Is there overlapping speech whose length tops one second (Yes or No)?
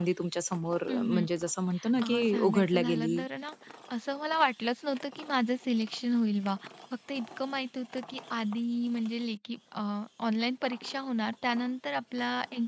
Yes